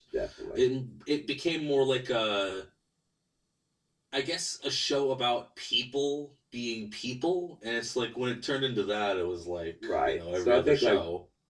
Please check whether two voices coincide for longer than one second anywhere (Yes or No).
Yes